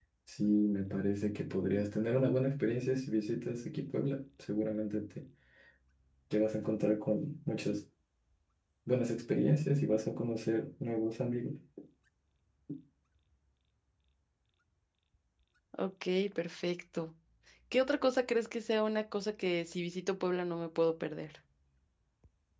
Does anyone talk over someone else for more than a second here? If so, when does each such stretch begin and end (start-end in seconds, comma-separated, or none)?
none